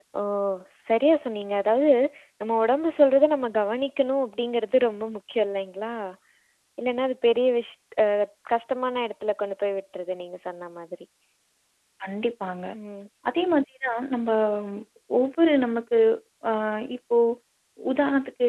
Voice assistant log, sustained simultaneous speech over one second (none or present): none